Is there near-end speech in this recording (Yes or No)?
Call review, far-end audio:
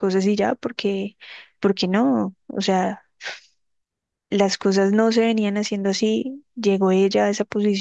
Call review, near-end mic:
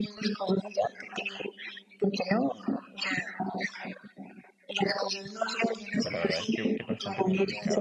Yes